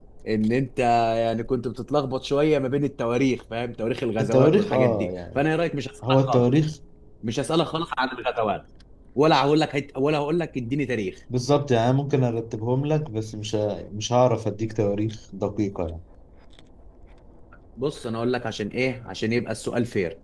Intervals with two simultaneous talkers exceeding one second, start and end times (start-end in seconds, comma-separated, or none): 4.2-5.4